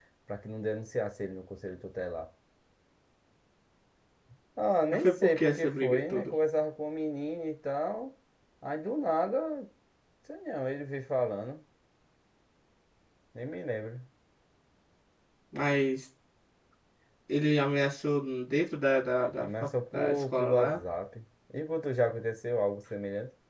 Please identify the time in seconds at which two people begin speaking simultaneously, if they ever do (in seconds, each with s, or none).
4.9 s